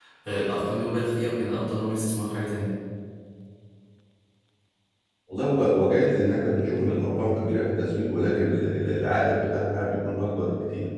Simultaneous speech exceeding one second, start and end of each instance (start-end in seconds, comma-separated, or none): none